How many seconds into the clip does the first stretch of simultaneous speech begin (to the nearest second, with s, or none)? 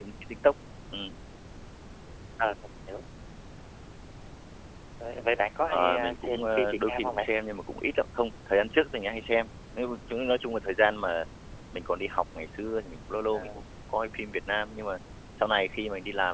6 s